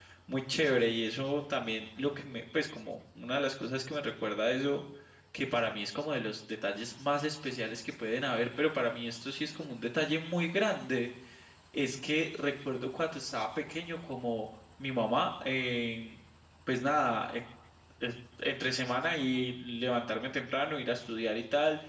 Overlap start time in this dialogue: none

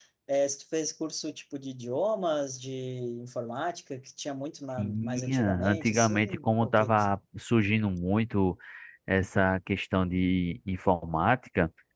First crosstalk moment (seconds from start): 4.8 s

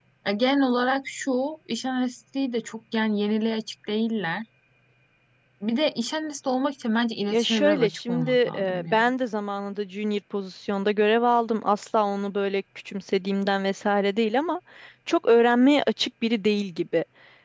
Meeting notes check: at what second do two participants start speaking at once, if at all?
7.3 s

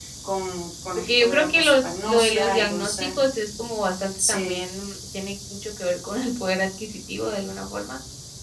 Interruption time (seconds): 1.0 s

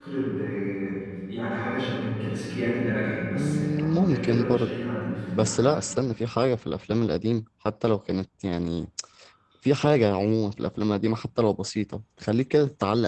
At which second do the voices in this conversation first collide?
3.4 s

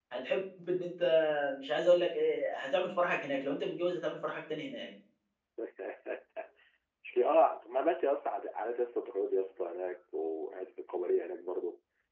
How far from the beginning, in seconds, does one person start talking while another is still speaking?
none

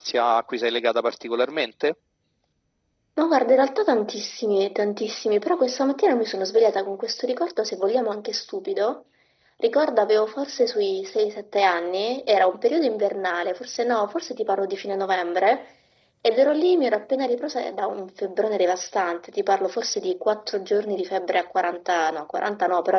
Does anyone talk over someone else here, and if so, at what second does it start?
none

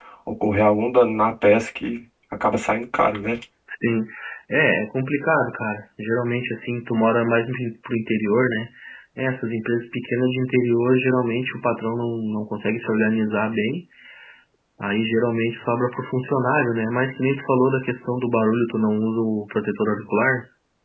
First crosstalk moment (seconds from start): none

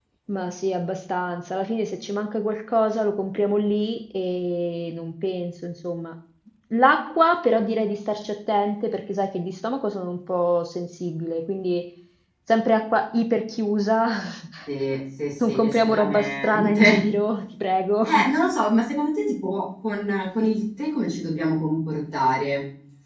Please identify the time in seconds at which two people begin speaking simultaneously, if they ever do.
15.5 s

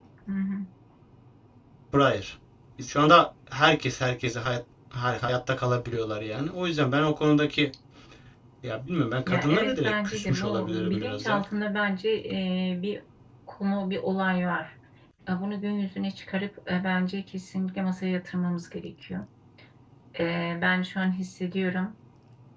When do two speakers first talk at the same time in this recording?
9.3 s

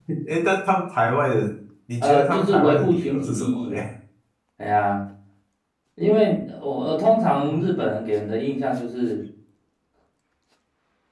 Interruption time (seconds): 2.0 s

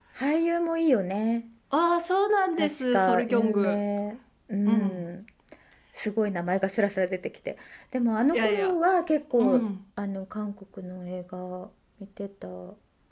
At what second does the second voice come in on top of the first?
2.6 s

